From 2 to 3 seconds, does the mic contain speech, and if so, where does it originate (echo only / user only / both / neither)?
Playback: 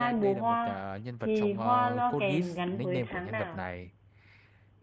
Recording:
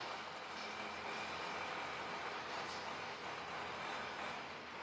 neither